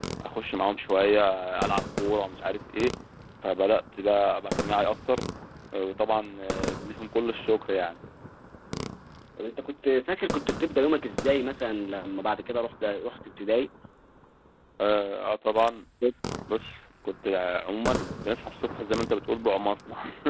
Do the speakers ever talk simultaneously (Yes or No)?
No